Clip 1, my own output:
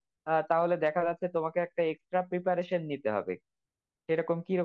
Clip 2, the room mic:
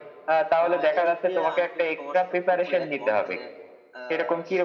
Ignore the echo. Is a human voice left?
Yes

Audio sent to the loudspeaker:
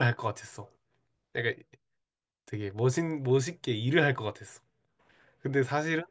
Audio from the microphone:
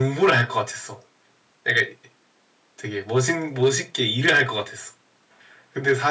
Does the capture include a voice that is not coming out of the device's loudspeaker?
No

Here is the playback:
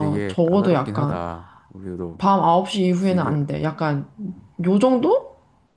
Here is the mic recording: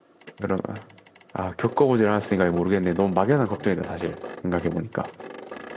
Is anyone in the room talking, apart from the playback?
Yes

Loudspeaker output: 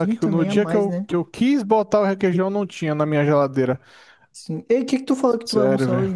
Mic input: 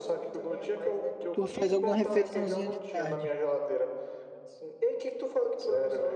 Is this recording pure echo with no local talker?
No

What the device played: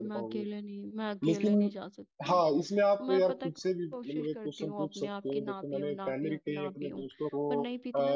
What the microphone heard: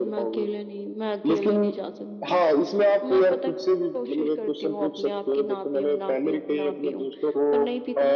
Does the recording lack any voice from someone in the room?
Yes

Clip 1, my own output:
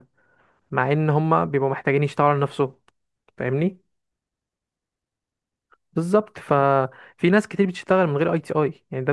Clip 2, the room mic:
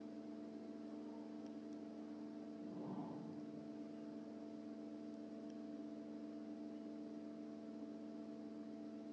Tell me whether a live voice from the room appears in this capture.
No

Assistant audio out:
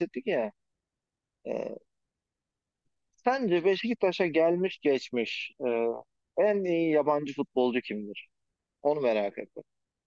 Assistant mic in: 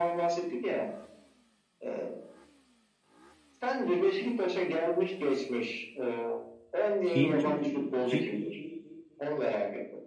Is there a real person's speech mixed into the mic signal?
Yes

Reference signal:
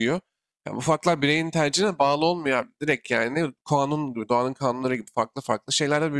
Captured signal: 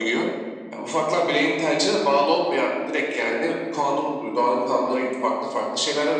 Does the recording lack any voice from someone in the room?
Yes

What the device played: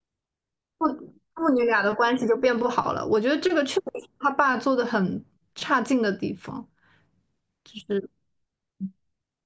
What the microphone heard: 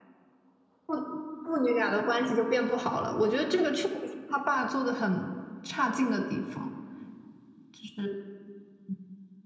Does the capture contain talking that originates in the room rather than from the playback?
No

